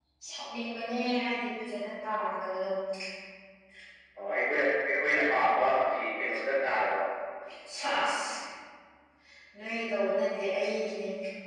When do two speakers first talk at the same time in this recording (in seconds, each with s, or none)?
none